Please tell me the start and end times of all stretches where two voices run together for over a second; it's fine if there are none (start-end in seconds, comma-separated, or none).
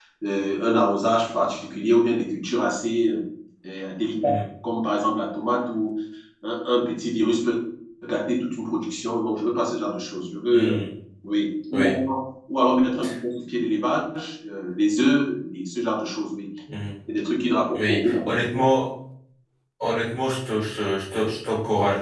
none